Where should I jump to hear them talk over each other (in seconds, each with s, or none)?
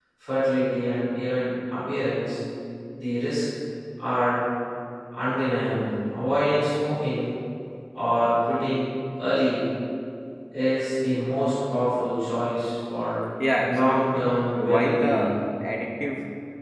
13.6 s